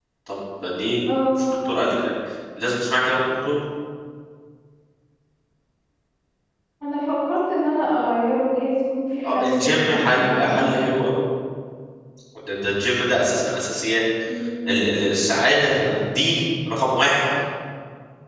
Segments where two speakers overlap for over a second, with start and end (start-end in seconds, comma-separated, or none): 9.2-10.7